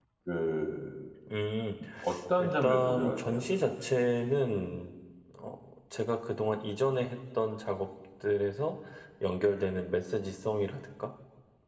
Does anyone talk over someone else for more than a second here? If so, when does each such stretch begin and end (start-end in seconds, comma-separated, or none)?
2.4-3.7